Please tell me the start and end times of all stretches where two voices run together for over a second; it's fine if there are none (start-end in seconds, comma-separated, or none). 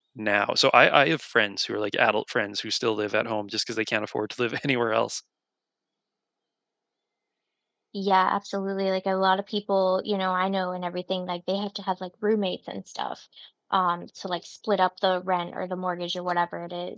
none